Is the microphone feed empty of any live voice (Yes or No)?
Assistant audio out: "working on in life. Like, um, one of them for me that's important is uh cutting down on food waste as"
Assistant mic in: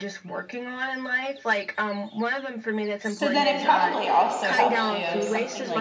No